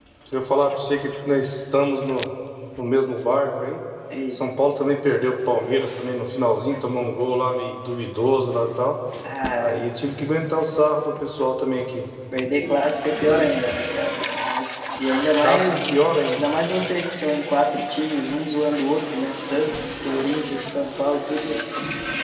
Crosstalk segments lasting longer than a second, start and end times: none

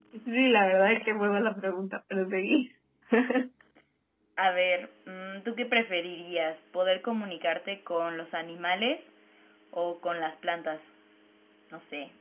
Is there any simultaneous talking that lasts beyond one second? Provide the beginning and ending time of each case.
none

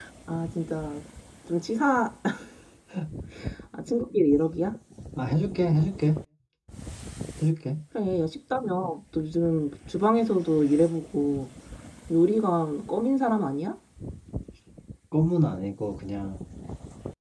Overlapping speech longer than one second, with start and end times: none

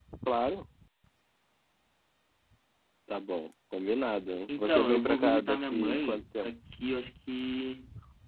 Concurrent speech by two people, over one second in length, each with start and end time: 4.6-6.5

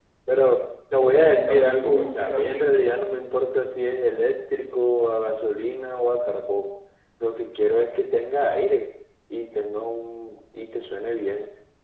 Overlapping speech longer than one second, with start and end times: 1.0-2.8

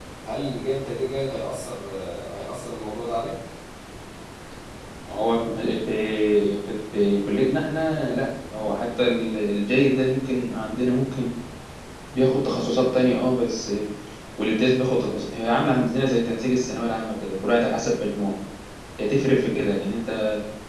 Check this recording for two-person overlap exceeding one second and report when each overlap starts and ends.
none

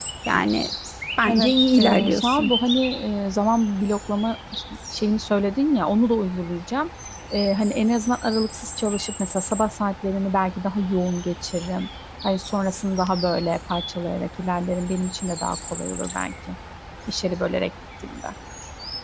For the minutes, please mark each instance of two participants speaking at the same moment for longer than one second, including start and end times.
1.3-2.5

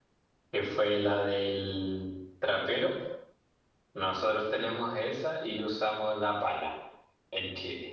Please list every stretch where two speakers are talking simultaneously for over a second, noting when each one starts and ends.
none

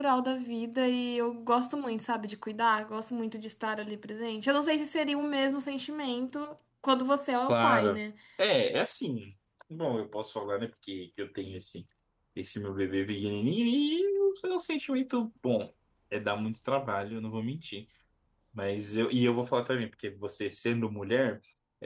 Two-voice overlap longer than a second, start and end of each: none

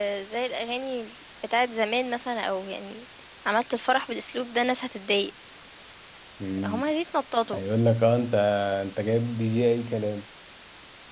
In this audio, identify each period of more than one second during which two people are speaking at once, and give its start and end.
none

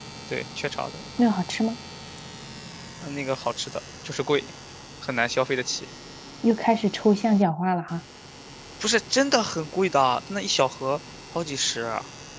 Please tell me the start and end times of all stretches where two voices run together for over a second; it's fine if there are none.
none

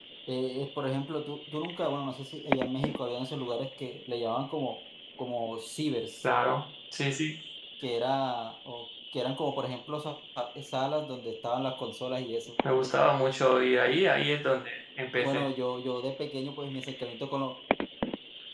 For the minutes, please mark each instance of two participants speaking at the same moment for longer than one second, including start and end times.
none

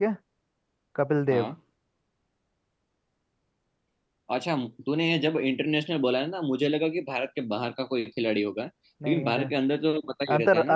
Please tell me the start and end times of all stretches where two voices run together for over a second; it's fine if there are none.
none

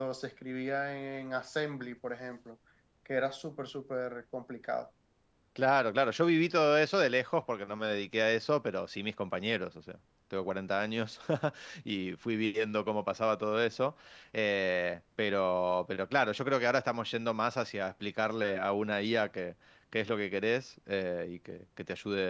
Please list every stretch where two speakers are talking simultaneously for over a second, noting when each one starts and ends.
none

